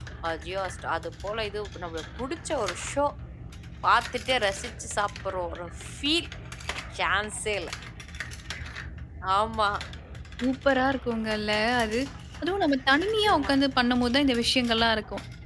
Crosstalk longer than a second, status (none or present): none